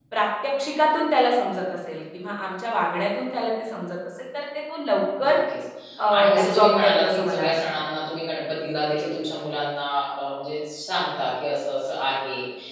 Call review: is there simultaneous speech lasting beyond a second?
Yes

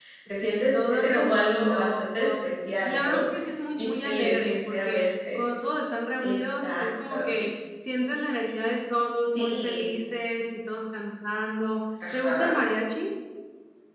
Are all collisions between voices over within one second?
No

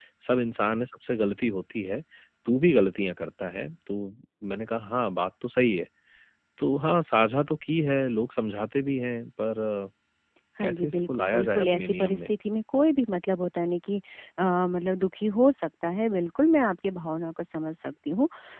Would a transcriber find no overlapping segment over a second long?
No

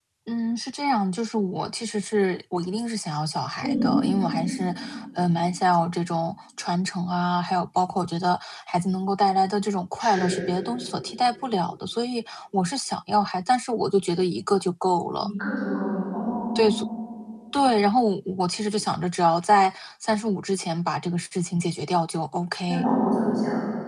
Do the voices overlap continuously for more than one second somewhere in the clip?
No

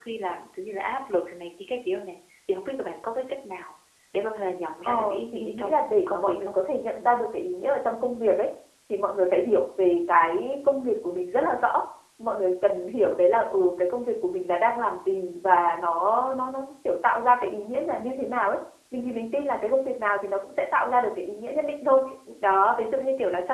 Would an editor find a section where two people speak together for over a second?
Yes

